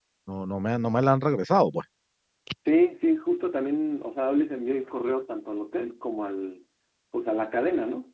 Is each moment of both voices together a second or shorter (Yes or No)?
Yes